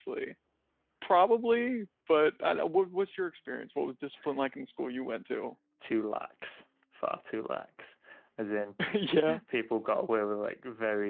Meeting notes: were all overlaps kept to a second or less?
Yes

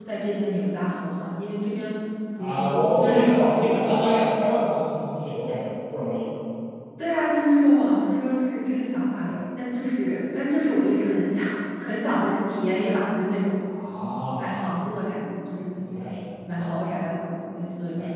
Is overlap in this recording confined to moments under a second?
No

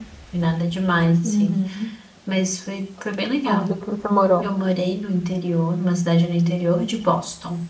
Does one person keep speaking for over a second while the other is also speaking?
No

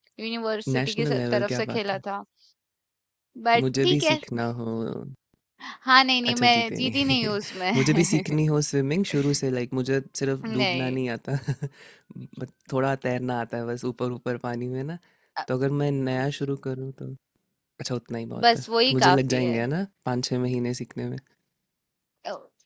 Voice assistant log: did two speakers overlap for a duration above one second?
Yes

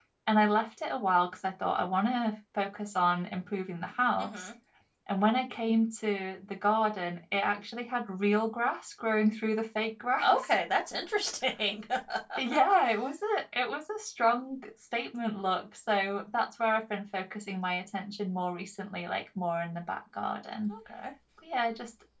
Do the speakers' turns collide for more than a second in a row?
No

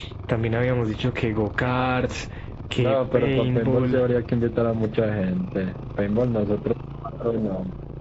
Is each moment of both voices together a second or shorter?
No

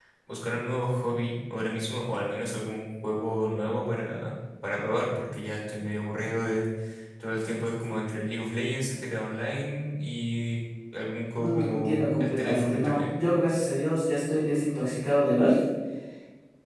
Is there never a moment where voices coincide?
No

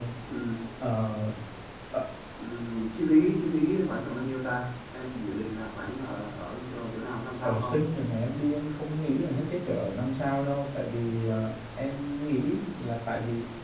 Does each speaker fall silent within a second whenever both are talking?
Yes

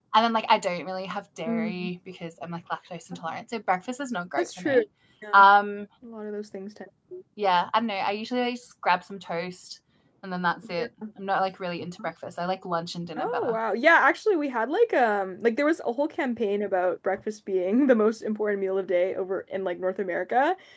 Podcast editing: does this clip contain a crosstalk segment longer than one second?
No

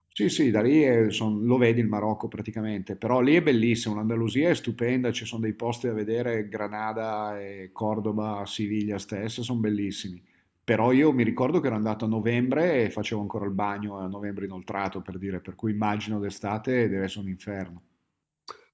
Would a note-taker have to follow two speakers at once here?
No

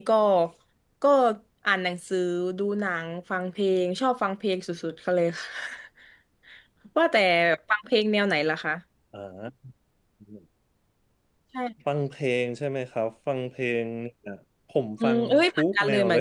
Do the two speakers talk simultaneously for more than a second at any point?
Yes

